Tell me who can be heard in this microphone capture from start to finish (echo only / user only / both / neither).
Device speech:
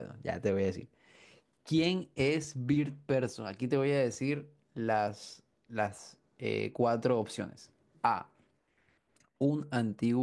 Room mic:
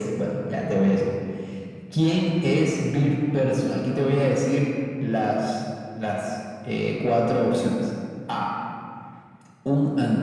echo only